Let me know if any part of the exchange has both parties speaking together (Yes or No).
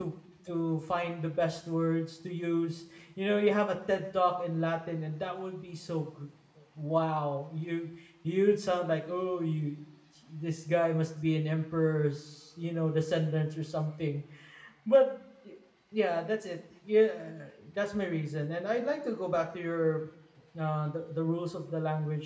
No